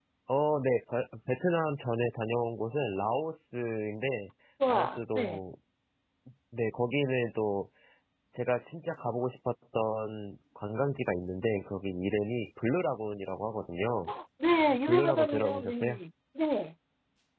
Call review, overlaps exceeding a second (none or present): present